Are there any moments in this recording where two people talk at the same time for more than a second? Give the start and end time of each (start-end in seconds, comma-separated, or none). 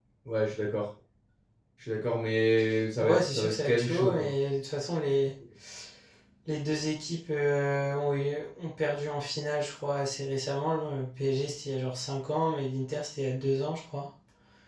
3.0-4.3